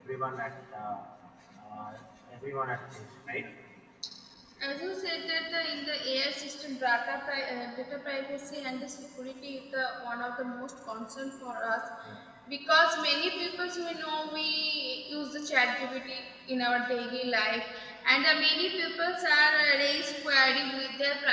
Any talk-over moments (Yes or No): No